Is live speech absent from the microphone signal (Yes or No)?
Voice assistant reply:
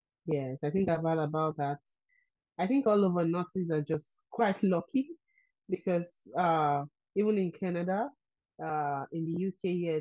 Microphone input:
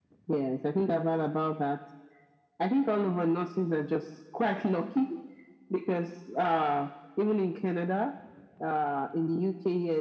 Yes